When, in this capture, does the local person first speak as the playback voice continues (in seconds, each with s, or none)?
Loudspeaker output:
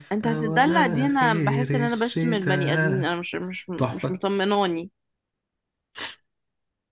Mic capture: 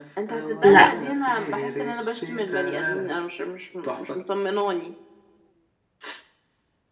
0.6 s